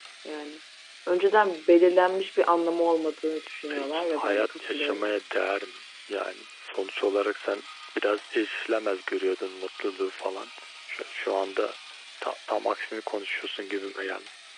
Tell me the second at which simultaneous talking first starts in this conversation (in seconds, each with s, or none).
3.7 s